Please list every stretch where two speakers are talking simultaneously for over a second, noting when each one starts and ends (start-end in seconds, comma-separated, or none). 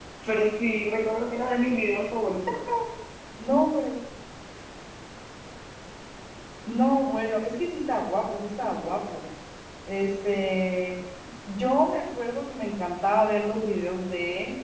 none